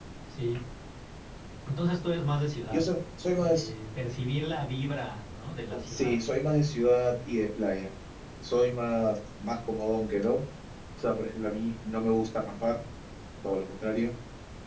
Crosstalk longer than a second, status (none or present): none